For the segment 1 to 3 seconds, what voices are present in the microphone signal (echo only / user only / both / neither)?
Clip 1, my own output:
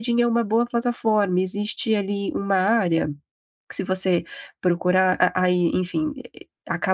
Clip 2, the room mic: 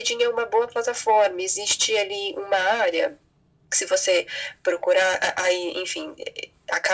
echo only